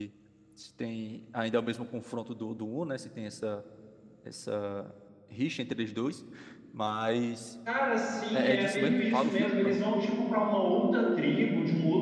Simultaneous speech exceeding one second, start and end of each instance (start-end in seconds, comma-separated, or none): 8.3-9.8